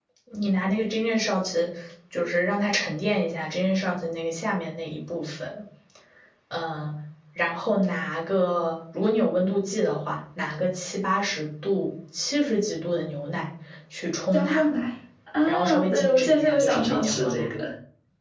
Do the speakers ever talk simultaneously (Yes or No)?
Yes